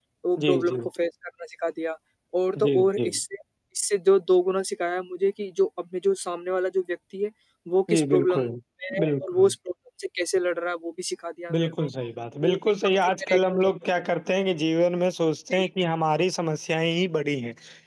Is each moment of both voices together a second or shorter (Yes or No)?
No